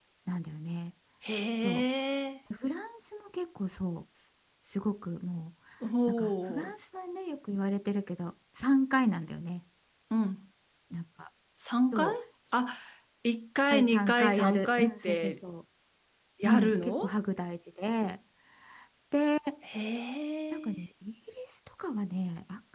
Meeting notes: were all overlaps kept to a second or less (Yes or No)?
No